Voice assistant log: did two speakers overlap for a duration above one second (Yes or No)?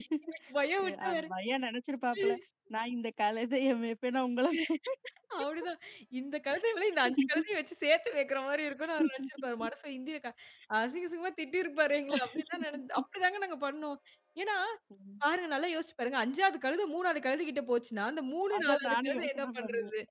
Yes